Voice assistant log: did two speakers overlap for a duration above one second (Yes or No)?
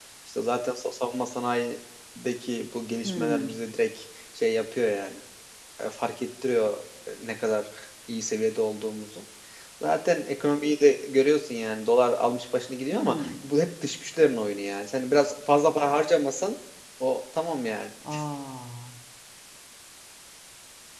No